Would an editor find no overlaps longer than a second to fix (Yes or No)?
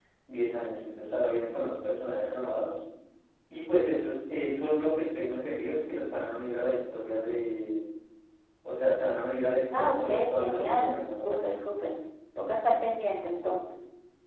No